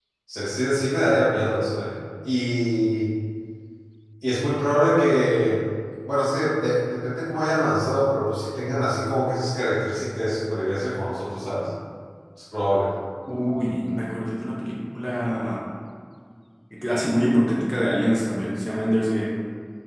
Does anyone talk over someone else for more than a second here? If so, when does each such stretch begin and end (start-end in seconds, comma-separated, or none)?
none